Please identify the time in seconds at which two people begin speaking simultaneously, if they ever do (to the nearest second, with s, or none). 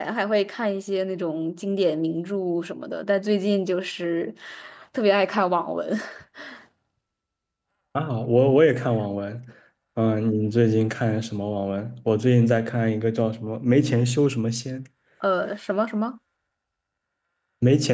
none